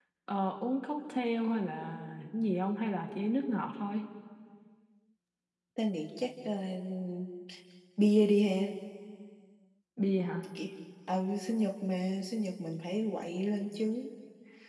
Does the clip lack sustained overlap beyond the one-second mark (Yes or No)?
Yes